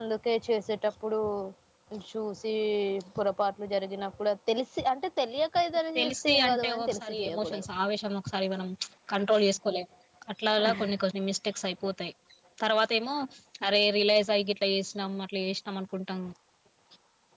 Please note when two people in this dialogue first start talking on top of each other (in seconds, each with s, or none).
6.0 s